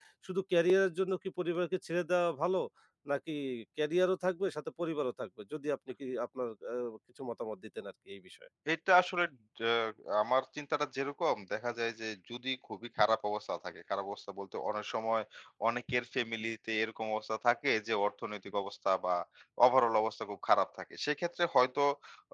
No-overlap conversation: Yes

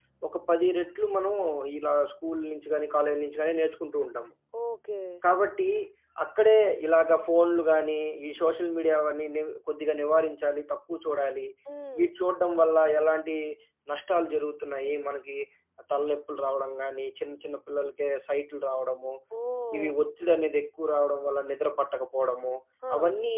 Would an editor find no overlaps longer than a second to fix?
Yes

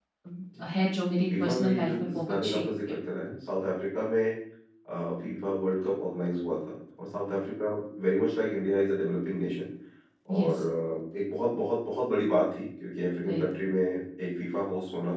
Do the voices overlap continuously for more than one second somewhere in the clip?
Yes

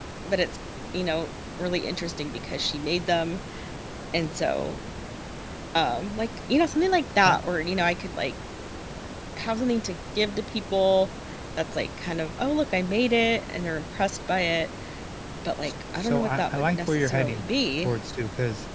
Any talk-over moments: Yes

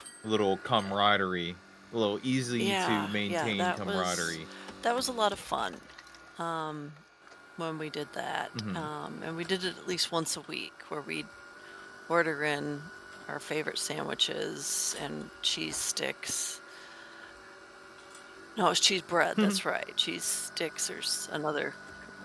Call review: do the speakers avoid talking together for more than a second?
No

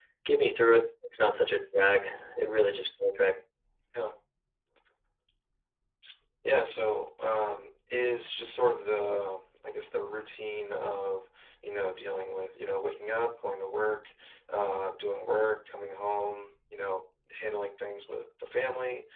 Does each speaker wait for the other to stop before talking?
Yes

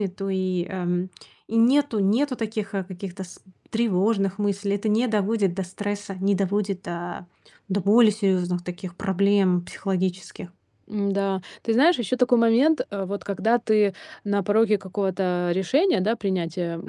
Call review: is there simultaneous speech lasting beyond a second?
No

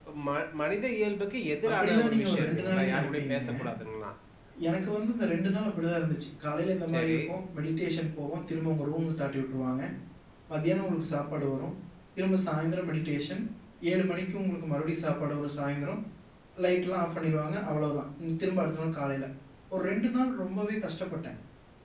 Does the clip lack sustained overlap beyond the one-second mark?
No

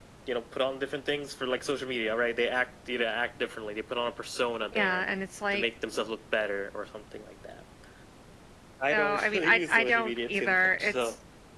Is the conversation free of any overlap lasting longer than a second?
No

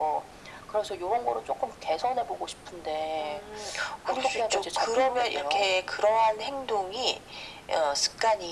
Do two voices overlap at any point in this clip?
Yes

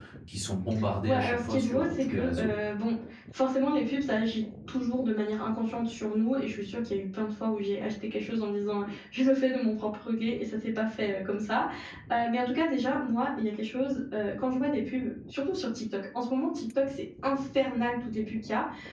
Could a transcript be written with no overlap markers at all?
No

